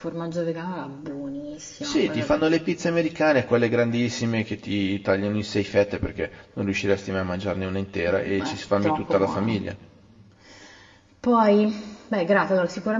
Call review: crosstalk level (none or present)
present